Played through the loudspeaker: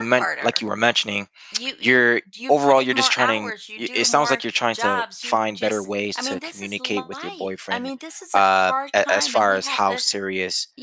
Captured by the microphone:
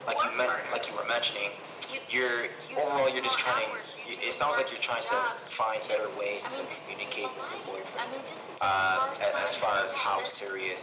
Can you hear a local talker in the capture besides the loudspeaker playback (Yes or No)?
No